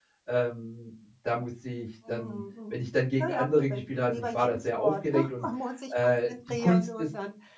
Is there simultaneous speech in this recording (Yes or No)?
Yes